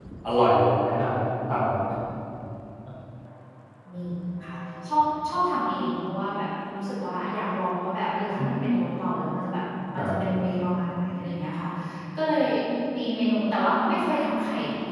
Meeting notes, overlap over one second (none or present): none